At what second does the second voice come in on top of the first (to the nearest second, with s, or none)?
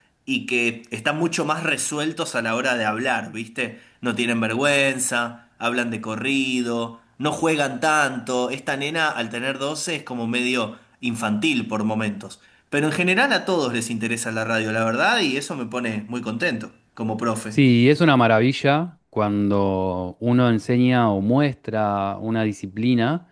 none